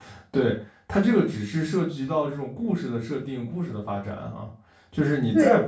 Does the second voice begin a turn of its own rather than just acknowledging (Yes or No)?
No